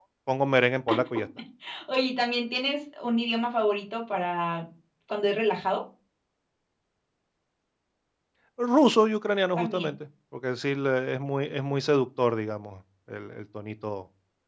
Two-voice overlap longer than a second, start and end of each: none

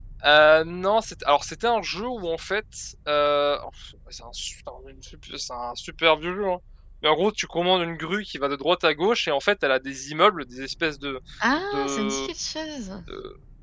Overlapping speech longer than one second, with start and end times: none

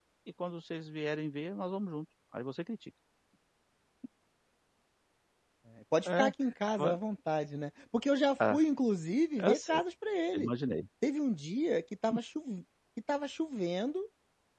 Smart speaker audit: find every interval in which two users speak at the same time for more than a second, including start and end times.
none

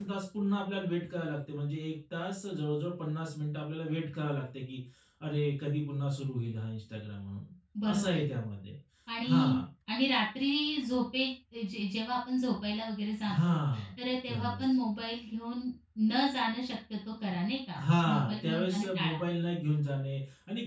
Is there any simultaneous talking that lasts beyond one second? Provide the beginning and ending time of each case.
17.8-19.2

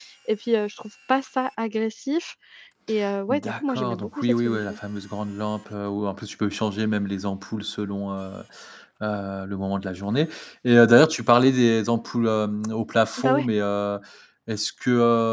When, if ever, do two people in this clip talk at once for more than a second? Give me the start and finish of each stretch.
3.3-4.8

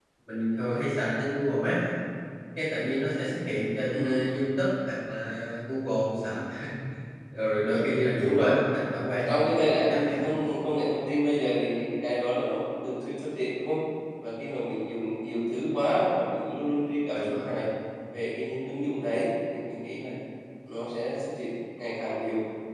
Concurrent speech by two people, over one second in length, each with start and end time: 9.1-10.4

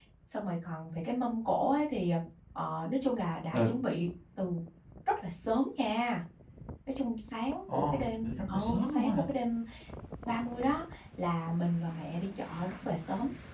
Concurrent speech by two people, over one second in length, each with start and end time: 7.7-9.2

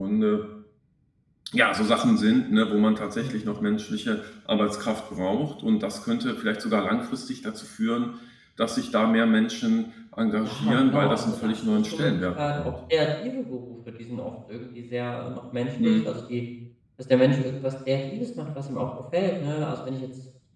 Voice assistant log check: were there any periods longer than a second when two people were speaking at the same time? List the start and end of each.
10.4-12.7

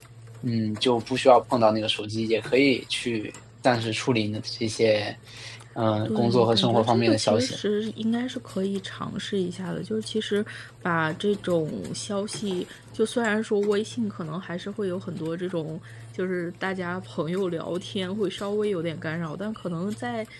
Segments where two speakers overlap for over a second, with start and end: 6.0-7.6

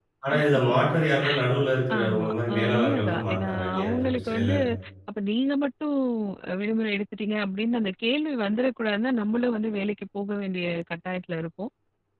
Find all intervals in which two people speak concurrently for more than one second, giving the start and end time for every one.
1.9-4.5

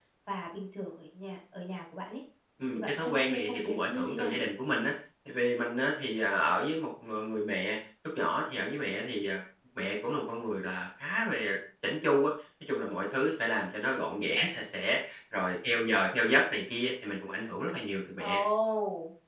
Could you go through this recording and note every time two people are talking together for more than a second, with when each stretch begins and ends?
2.8-4.4

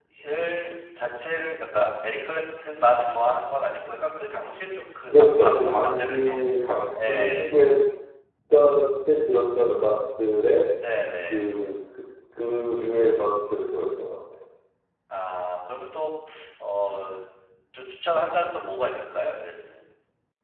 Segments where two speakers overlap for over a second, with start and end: 5.1-6.4

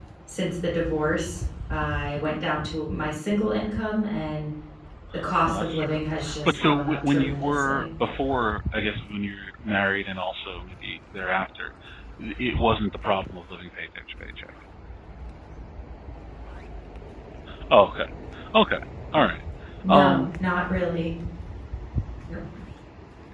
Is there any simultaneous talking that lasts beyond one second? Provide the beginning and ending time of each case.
6.4-7.9

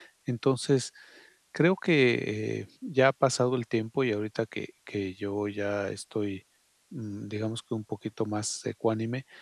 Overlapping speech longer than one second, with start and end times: none

